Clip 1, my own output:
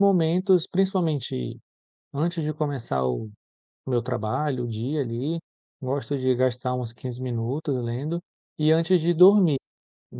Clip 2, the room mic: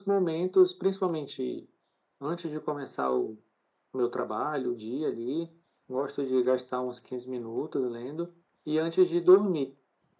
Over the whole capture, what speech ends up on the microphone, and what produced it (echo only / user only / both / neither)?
echo only